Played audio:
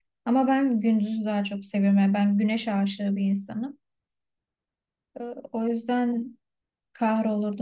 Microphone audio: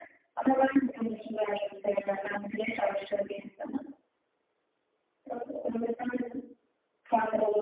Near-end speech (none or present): none